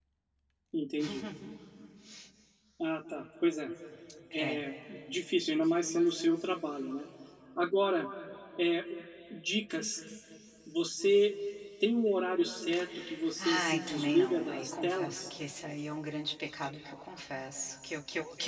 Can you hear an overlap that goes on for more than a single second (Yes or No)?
Yes